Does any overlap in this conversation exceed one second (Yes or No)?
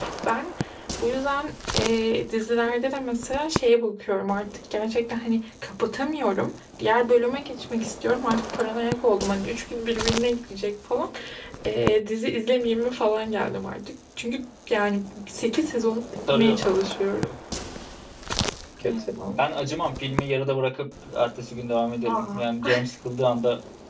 No